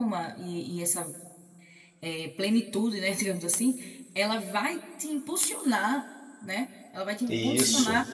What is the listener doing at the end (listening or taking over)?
listening